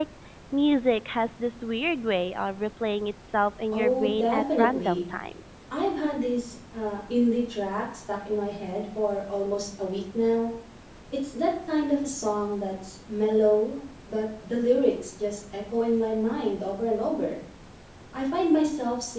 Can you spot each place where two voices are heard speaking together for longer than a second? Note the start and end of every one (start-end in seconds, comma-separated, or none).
3.7-5.0